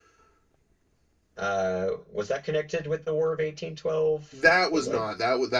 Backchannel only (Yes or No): No